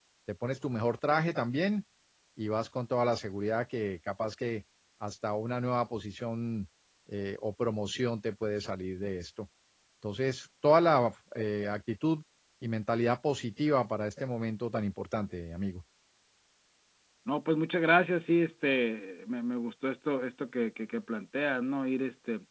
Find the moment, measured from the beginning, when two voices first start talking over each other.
none

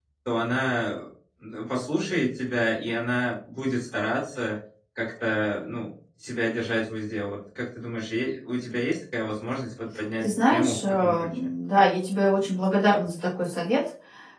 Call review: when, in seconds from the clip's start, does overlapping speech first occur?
10.2 s

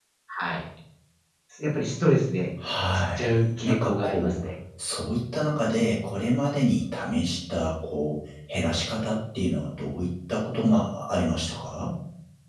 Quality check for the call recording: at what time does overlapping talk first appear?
2.9 s

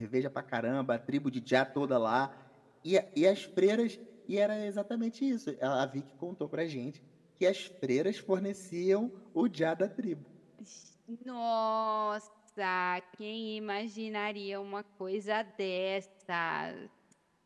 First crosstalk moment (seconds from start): none

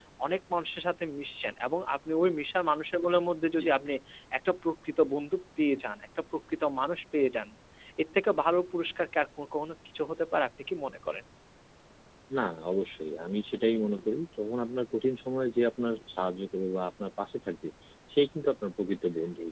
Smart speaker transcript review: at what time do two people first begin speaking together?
none

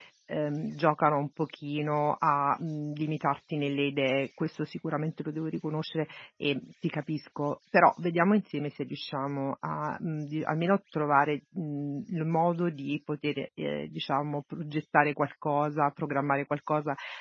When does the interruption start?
none

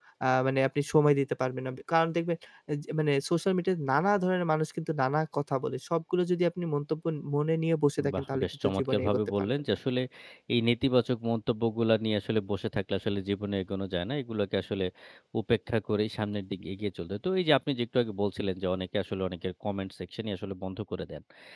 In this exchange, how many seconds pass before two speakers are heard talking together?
8.0 s

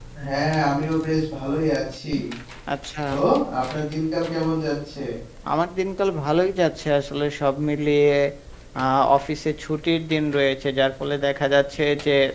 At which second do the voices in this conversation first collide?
none

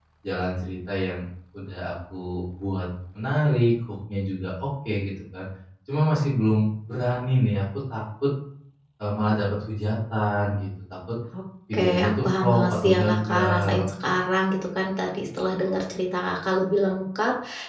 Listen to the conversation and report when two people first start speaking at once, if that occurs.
11.7 s

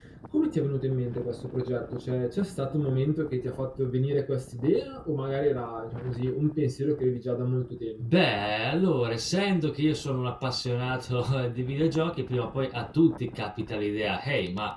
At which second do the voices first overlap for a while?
none

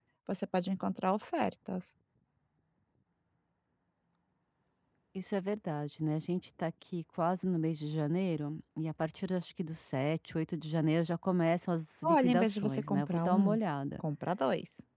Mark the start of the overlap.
12.0 s

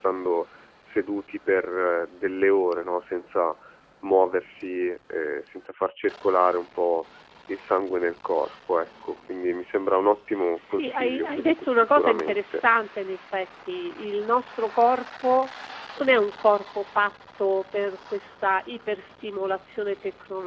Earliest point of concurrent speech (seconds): 10.6 s

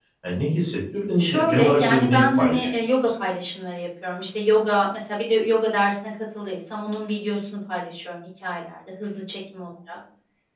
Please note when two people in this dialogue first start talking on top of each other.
1.2 s

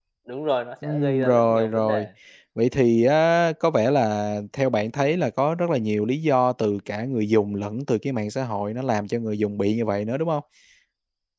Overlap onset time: 0.8 s

